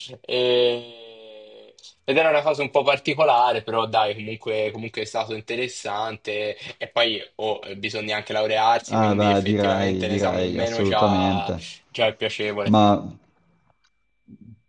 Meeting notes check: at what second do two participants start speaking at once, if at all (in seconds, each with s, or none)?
8.9 s